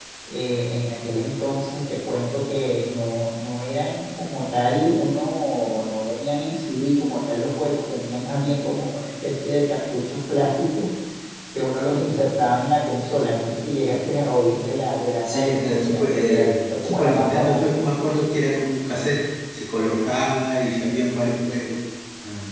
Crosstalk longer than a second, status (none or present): present